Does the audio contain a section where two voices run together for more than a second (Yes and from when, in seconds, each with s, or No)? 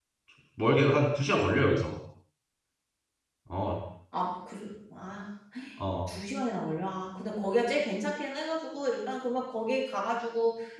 No